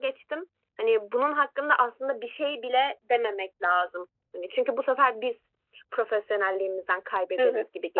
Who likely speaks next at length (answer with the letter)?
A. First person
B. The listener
B